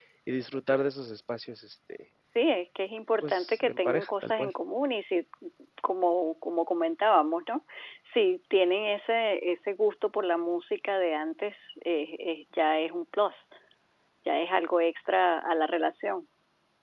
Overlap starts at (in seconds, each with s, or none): 3.2 s